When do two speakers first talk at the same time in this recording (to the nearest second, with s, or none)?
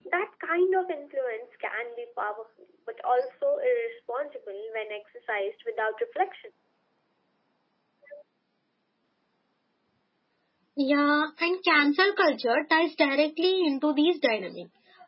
none